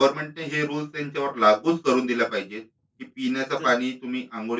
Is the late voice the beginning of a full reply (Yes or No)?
No